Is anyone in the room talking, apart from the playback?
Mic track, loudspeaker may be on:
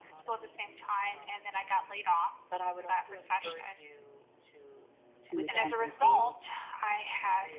Yes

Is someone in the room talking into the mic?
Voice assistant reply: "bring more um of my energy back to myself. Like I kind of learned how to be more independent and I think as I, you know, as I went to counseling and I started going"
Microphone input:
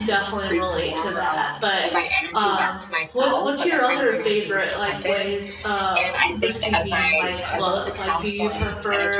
Yes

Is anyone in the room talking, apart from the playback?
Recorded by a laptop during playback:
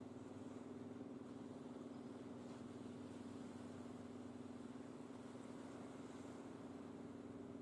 No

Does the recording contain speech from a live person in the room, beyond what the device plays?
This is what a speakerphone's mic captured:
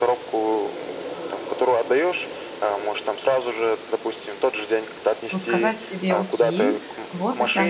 Yes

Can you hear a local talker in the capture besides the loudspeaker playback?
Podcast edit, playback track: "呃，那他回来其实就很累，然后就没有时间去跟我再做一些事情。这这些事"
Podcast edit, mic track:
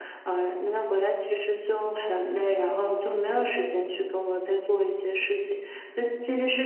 No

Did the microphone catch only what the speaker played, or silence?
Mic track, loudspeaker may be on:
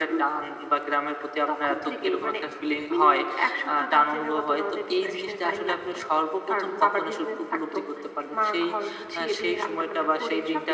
Yes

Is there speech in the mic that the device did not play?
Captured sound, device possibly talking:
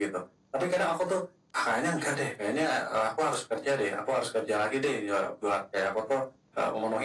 No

